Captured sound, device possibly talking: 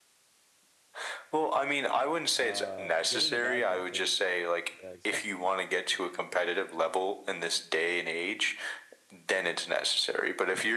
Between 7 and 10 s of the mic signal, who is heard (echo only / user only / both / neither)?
echo only